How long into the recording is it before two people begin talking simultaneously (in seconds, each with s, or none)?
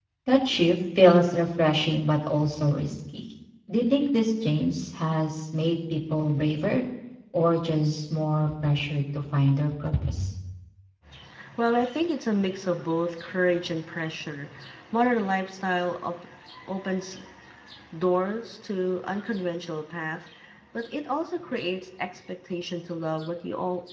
none